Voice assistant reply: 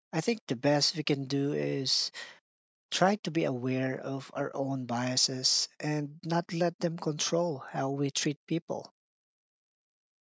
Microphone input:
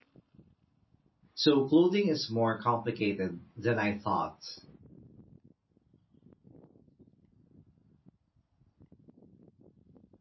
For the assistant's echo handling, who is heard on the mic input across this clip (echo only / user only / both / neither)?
user only